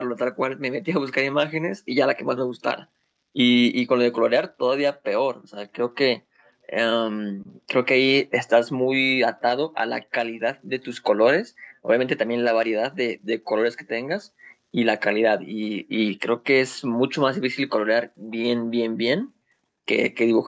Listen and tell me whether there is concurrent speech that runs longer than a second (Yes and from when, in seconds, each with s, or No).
No